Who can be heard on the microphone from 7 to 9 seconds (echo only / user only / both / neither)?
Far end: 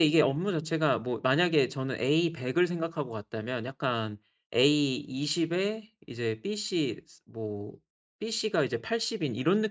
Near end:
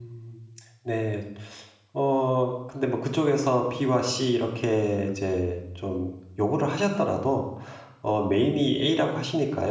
user only